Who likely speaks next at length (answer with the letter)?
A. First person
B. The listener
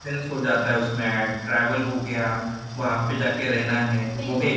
A